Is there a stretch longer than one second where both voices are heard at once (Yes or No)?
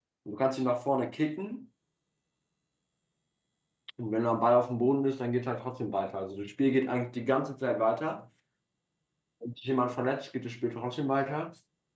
No